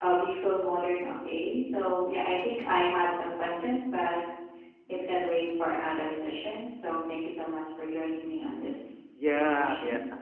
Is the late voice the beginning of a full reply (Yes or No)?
Yes